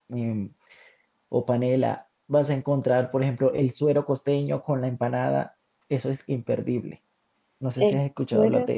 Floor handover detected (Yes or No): Yes